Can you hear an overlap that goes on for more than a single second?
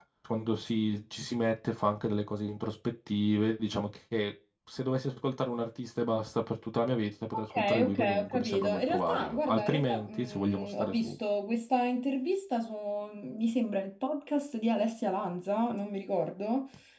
Yes, from 7.3 s

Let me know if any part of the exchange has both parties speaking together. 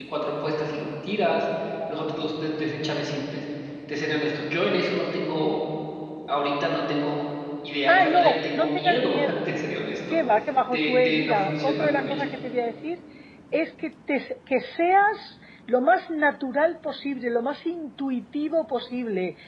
Yes, from 7.9 s

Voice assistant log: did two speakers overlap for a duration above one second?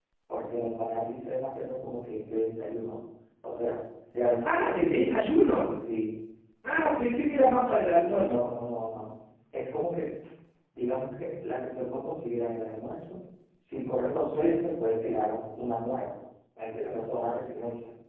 No

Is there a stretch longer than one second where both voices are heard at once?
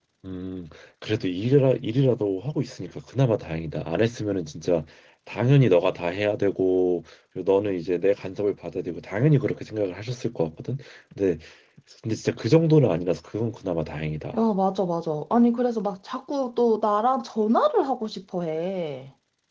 No

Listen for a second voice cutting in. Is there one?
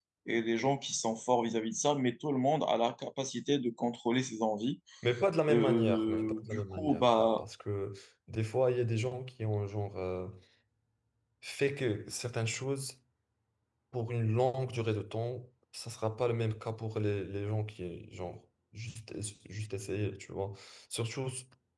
Yes, from 5.5 s

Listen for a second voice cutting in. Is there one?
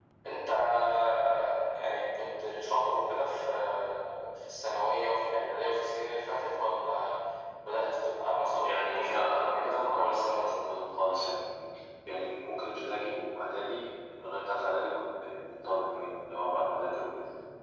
Yes, from 8.6 s

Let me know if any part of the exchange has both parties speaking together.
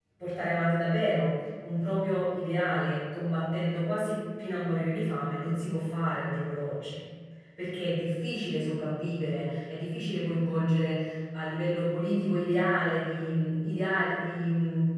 No

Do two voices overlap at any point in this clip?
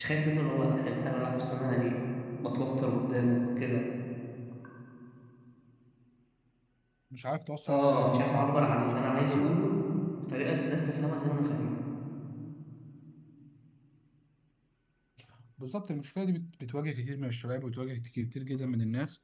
Yes, from 7.7 s

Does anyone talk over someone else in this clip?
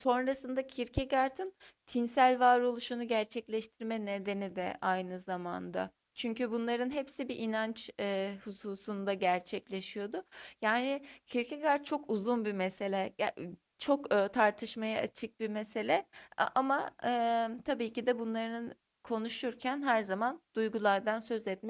No

